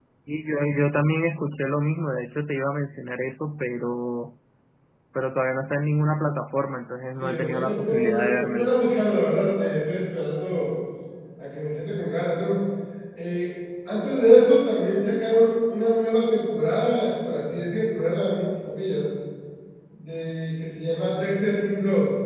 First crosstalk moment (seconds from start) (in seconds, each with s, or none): 7.2 s